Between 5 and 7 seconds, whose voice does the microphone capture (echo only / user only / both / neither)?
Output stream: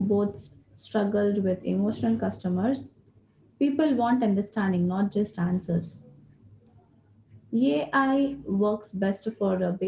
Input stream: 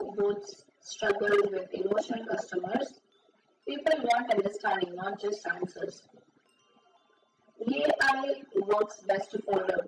echo only